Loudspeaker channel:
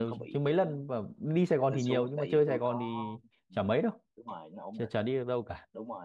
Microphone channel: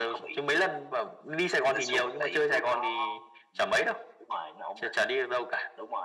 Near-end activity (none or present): none